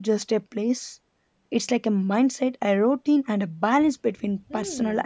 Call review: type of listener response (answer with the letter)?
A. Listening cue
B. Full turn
B